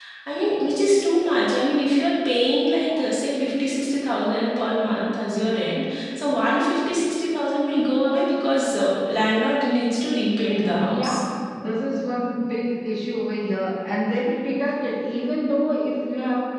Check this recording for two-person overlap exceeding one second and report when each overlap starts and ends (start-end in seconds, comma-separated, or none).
none